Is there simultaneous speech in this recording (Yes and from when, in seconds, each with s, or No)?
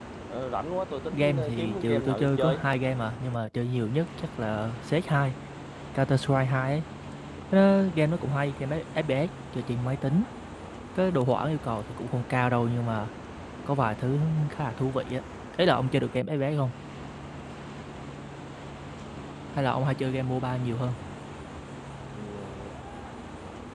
Yes, from 1.1 s